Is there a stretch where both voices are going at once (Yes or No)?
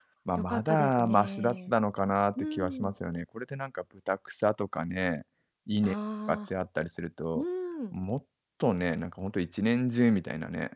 Yes